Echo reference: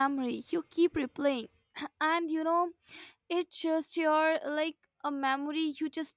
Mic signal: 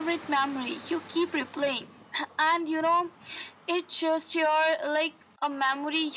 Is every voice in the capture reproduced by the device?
Yes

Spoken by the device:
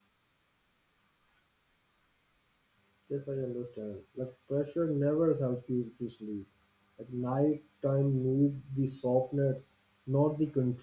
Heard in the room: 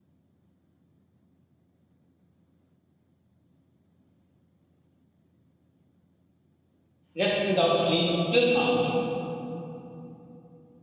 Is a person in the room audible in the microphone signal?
Yes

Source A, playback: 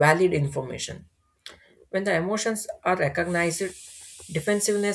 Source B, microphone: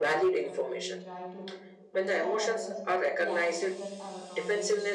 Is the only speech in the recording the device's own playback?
No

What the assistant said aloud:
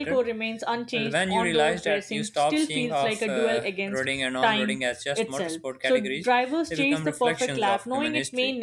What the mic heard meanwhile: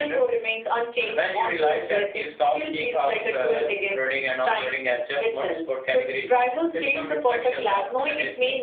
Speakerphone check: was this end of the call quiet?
Yes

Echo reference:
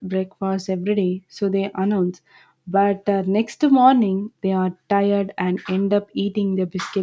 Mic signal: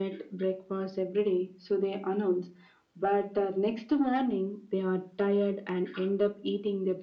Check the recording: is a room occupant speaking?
No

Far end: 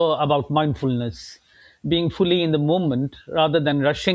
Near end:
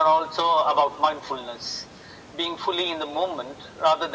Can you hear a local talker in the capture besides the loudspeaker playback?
No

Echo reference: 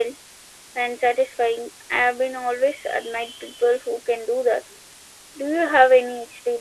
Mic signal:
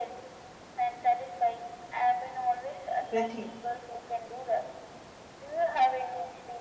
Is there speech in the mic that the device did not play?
Yes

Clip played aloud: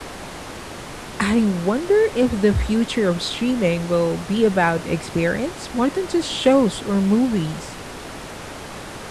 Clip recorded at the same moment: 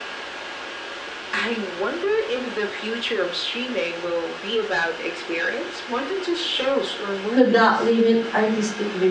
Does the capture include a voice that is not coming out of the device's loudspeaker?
Yes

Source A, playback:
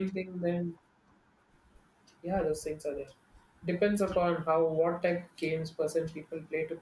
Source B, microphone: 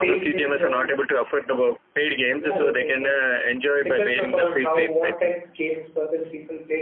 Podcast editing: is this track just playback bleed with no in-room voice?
No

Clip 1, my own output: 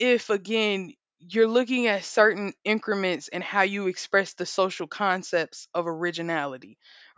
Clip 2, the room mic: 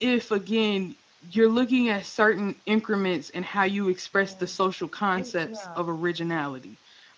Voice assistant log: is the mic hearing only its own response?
No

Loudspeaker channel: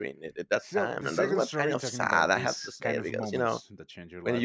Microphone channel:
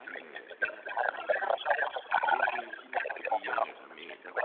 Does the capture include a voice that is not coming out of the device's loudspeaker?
Yes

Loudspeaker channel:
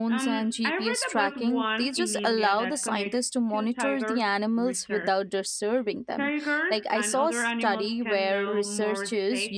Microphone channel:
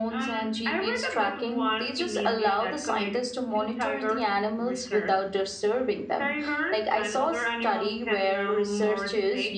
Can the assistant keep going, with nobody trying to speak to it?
Yes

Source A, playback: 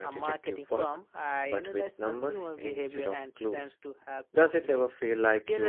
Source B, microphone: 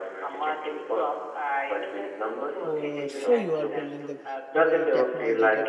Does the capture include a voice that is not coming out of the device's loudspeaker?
Yes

